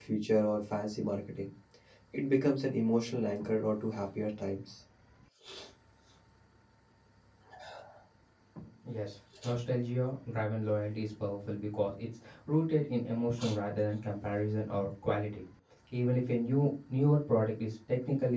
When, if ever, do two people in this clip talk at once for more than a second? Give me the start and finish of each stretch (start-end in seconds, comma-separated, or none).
none